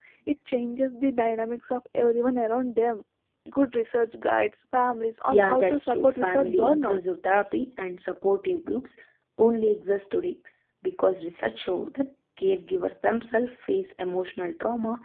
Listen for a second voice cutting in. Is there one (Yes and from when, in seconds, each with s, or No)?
Yes, from 5.3 s